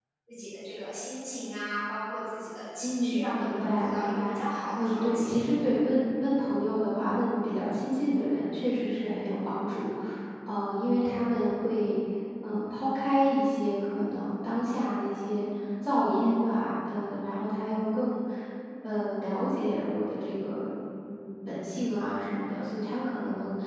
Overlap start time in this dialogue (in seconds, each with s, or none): 2.8 s